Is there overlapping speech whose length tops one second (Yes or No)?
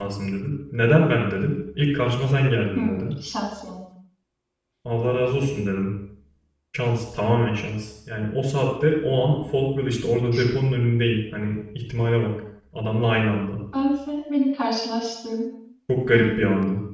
No